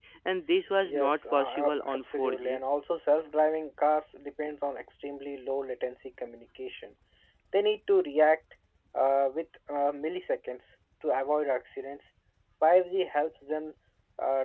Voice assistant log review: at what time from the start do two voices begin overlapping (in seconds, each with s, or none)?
0.8 s